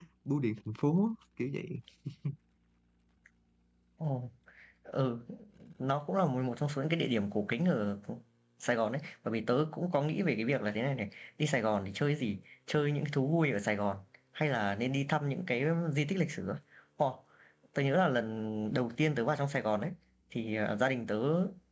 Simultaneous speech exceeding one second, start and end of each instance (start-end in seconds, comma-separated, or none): none